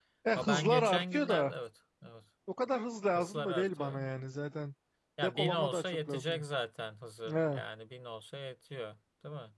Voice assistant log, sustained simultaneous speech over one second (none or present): present